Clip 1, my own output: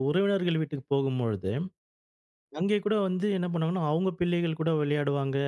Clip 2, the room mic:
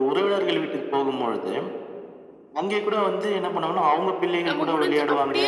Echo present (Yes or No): Yes